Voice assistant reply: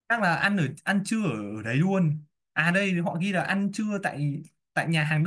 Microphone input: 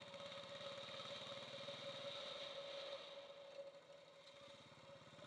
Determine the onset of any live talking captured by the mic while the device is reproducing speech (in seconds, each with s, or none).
none